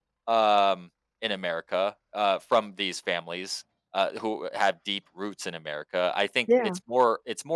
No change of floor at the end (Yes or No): Yes